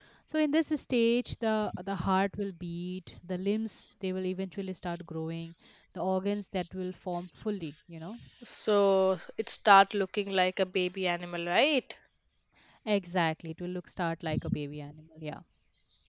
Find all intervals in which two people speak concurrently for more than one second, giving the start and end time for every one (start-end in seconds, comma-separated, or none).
none